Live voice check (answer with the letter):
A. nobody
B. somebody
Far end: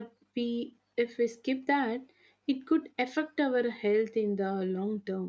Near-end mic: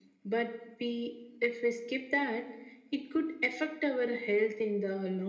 A